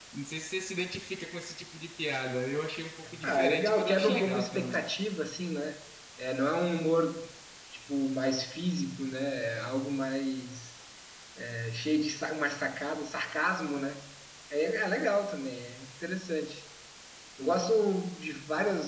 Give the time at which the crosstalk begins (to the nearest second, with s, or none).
3 s